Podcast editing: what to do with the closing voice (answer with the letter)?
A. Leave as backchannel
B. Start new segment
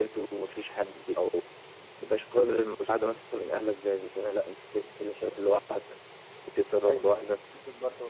B